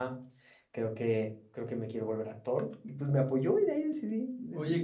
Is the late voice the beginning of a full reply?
Yes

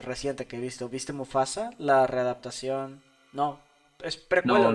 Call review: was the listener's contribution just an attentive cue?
No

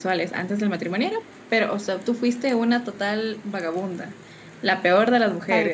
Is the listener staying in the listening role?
Yes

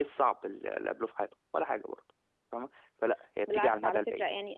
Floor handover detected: Yes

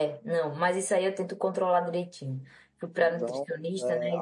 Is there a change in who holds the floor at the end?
Yes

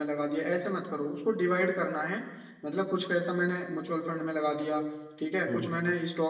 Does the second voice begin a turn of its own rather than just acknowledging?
No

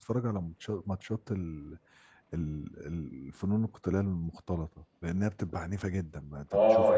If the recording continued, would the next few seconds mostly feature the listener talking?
Yes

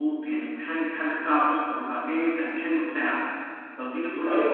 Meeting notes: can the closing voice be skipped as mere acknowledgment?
No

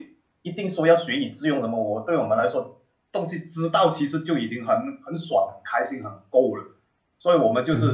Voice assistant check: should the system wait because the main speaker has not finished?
Yes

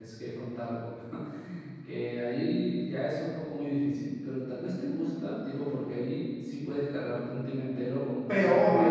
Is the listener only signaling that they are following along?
No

